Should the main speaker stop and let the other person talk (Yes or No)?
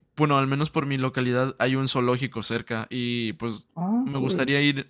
No